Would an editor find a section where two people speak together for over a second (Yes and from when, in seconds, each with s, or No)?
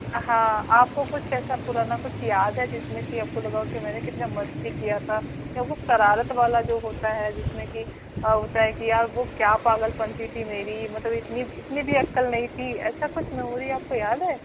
No